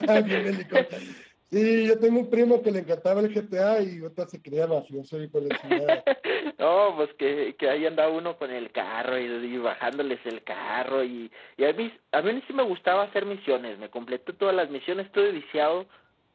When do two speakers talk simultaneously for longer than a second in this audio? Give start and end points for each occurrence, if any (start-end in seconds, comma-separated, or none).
none